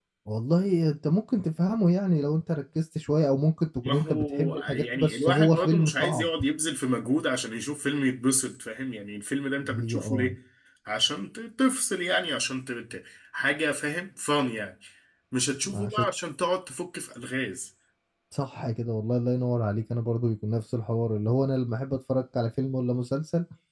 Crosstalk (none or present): present